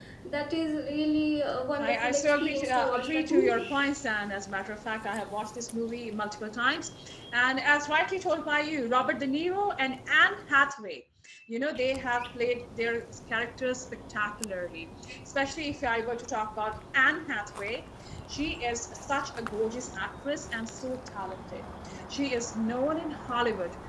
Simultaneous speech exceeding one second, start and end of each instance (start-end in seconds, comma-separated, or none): 1.8-3.6